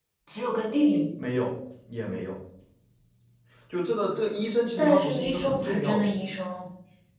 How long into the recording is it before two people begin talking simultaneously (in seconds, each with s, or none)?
4.8 s